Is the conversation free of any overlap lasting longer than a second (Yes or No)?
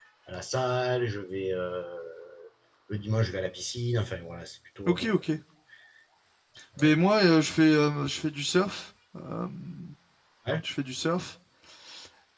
Yes